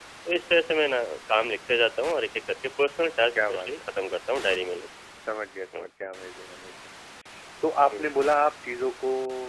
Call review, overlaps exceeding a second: none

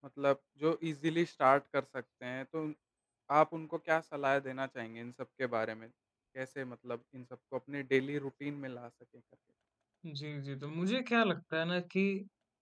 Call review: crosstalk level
none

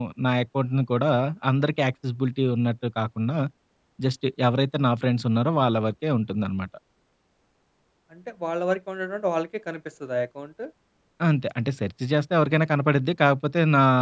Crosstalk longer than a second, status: none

